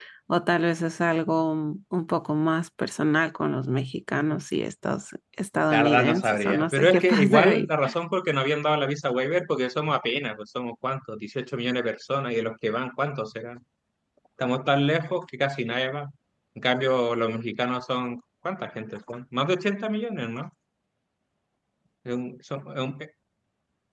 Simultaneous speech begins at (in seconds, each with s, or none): 5.7 s